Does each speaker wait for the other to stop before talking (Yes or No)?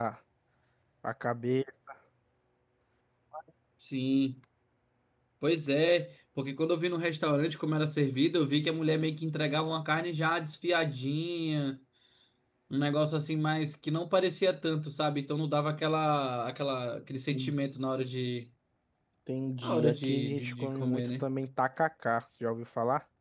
No